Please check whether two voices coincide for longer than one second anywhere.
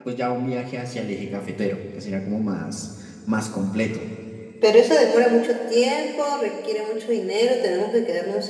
No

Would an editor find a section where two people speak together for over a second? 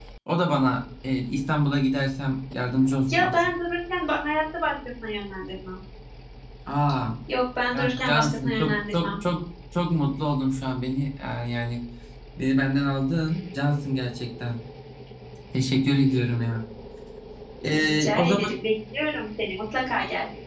Yes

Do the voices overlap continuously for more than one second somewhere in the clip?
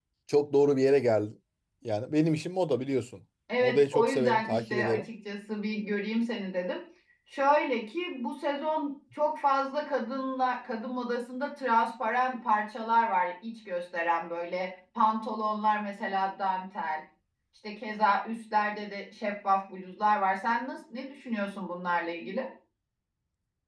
Yes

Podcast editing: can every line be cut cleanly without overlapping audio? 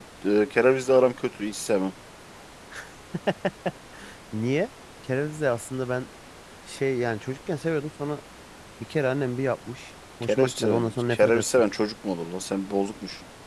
No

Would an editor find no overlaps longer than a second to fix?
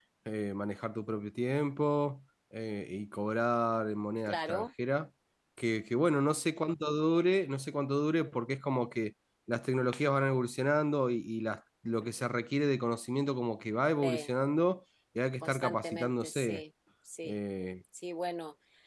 No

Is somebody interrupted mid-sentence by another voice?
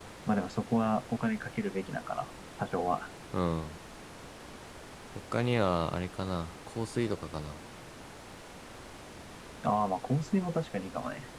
No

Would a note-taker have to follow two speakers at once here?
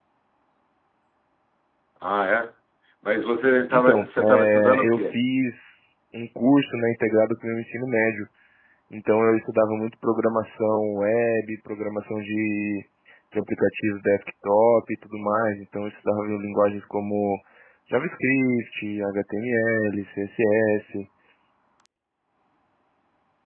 Yes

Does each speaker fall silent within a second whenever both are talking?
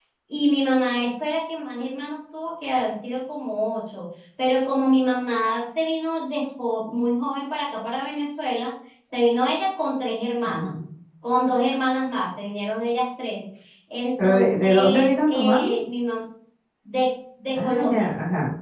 No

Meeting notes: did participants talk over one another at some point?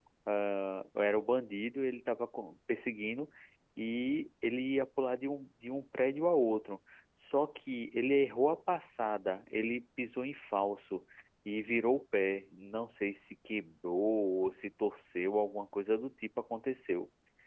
No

